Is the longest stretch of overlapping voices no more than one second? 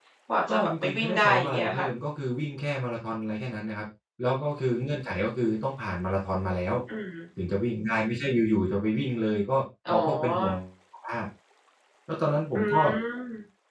No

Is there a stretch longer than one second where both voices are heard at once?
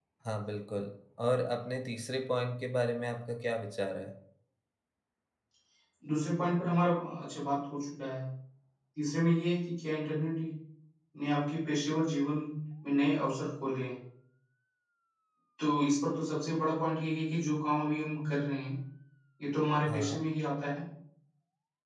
No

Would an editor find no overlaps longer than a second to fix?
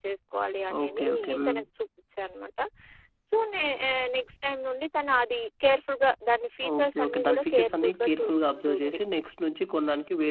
No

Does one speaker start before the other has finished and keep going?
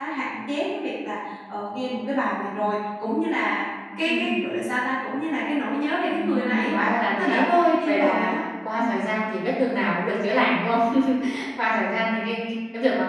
Yes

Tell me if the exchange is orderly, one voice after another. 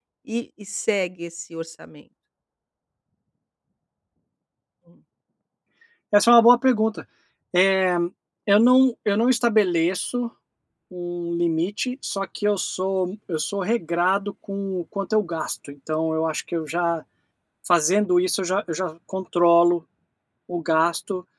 Yes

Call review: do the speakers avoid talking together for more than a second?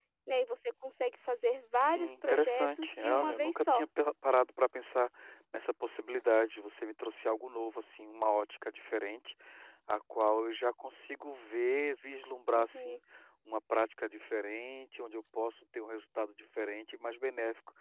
No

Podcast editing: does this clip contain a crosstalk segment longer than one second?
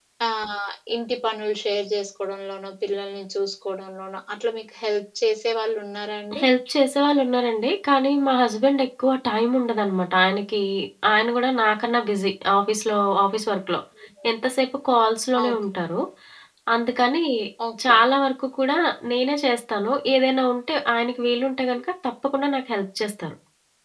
No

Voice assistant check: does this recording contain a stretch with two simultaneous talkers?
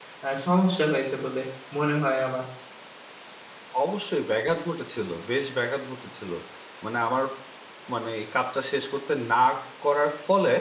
No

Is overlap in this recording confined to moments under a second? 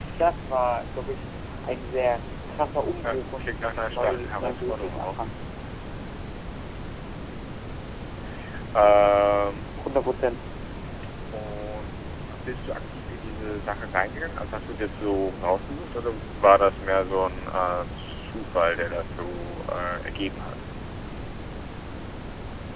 No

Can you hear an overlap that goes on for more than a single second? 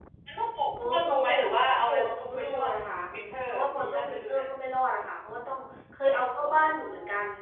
Yes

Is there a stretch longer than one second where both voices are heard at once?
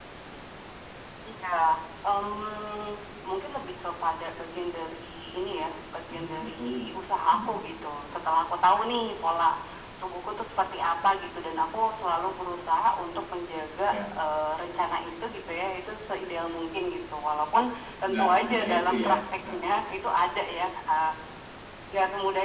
Yes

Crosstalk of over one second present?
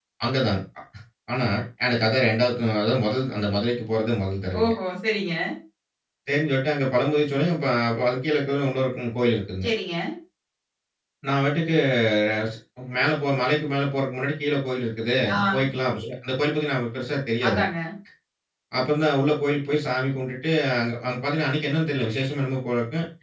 No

